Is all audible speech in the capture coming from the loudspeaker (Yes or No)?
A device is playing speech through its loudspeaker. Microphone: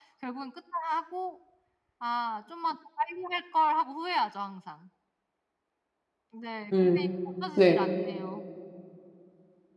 No